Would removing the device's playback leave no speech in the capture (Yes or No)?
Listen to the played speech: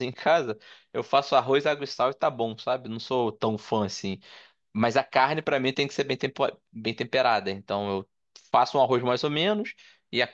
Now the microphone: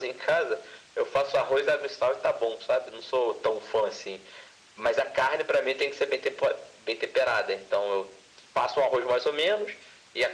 Yes